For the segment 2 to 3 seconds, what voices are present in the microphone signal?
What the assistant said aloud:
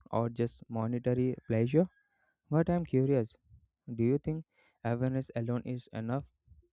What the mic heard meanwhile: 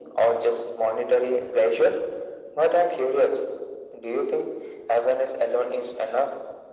echo only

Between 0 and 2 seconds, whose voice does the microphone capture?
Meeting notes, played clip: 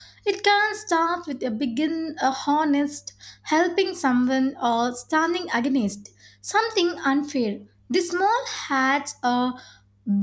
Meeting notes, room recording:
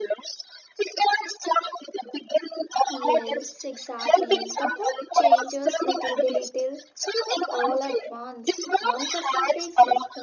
echo only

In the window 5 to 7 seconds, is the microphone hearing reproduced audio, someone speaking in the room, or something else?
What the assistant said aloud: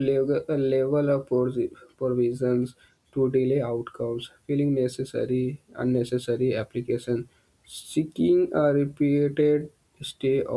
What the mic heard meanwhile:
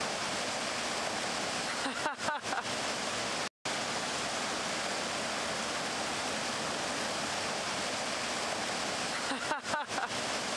neither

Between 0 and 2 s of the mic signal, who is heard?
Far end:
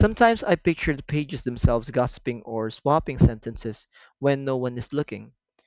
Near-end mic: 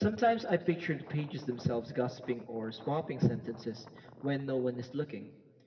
echo only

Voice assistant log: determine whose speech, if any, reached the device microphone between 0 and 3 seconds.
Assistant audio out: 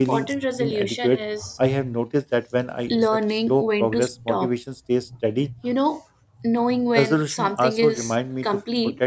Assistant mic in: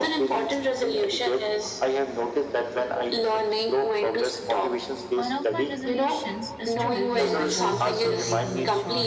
echo only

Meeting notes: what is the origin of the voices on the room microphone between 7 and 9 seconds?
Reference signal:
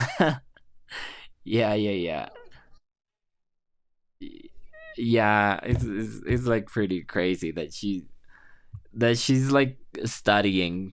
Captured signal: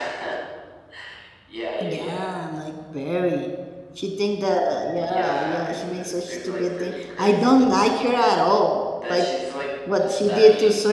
both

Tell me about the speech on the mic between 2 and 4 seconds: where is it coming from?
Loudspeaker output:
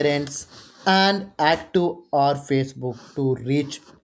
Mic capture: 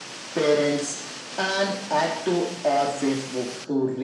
echo only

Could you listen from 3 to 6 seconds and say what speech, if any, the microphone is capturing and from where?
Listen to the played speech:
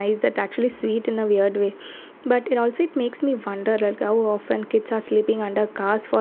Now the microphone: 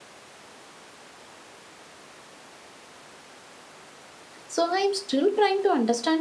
user only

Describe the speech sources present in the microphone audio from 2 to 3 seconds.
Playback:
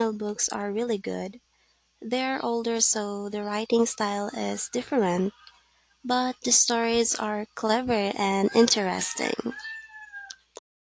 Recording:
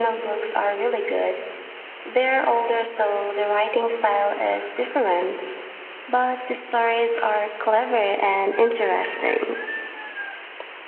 echo only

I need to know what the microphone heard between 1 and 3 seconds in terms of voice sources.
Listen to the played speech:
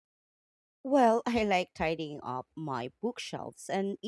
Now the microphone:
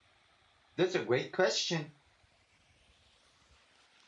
user only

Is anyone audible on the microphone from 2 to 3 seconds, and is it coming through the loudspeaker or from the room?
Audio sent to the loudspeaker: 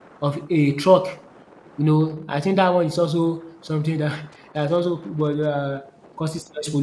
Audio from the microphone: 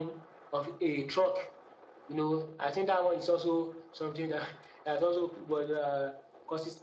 echo only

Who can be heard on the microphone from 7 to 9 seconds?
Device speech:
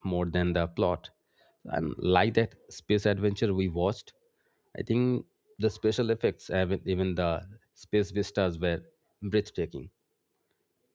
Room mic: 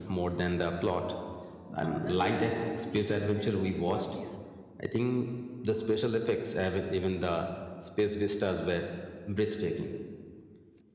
echo only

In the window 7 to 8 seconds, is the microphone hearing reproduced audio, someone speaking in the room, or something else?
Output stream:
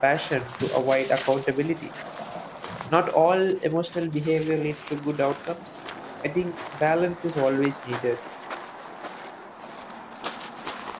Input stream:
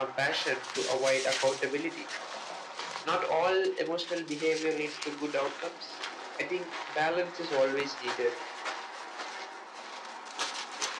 echo only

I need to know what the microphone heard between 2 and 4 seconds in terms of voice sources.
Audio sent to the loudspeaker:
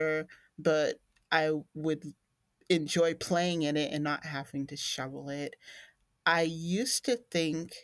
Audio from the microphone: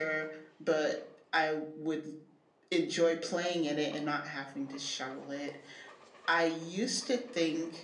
echo only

